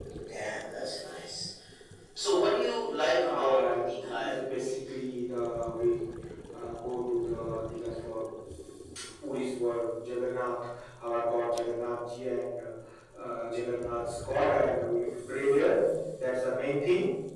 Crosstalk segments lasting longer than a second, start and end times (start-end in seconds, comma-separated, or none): 3.2-4.8